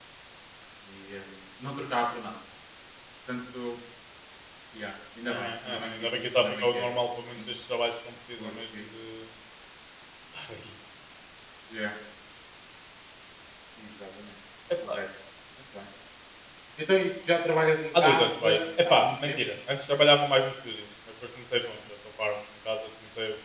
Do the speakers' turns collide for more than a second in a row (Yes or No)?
Yes